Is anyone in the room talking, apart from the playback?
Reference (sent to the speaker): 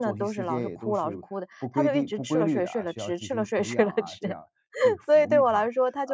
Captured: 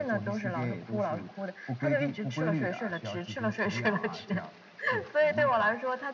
No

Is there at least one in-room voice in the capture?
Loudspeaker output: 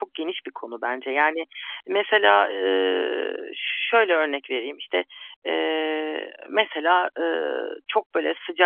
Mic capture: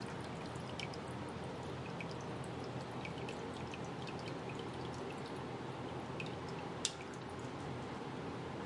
No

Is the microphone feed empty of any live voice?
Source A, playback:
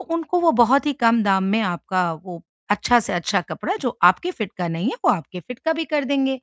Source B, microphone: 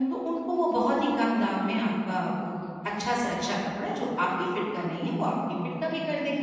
Yes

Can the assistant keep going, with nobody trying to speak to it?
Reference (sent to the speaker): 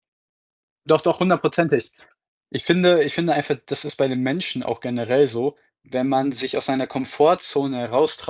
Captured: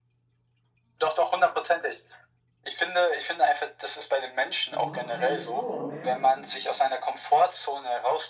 No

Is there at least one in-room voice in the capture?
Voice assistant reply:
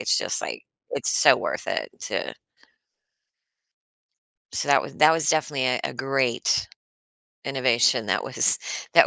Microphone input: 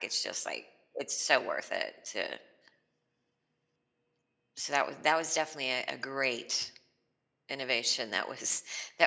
No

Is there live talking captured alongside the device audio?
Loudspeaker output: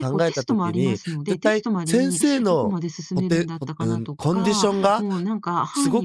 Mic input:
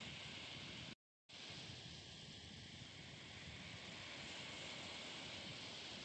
No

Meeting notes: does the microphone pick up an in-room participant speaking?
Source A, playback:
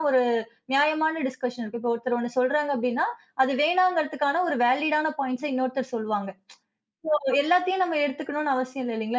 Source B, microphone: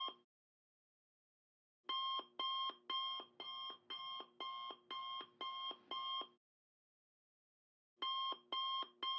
No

